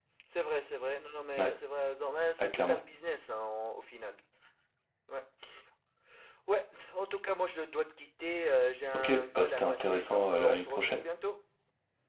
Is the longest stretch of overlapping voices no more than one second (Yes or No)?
No